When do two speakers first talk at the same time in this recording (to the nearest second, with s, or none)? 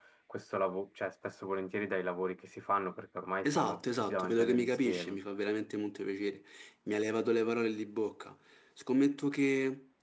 3 s